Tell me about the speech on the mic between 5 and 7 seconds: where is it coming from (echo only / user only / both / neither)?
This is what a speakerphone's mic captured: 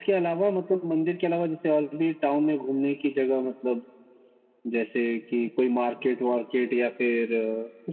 echo only